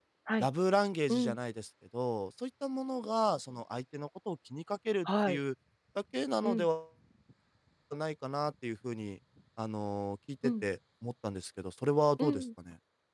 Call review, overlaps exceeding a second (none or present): none